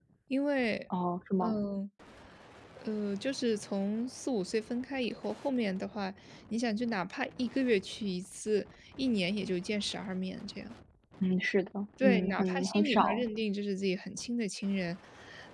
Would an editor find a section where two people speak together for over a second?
Yes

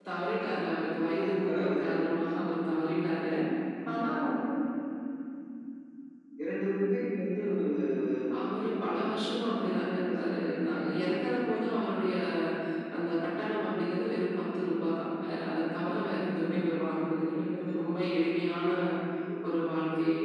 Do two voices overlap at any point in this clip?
Yes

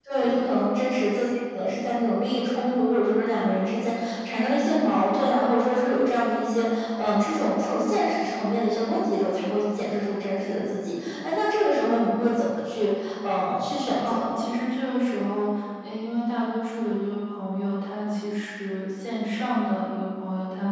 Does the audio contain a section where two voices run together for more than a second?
No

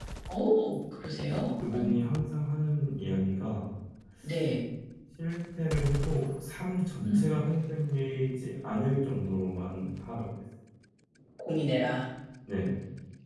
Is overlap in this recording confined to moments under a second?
Yes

